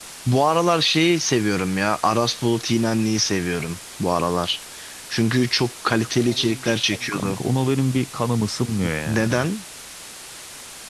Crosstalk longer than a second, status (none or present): none